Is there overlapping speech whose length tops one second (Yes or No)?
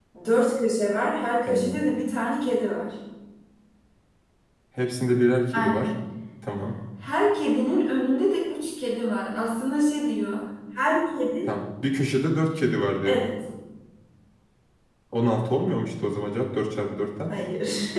No